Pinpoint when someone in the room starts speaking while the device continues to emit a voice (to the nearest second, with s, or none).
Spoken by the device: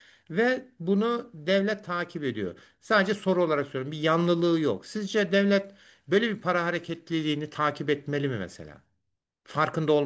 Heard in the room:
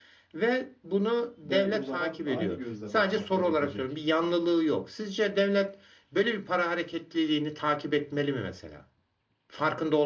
1 s